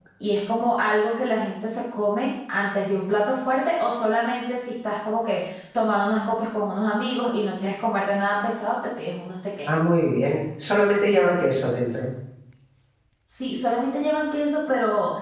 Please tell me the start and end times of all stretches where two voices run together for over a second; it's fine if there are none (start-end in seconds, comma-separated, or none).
none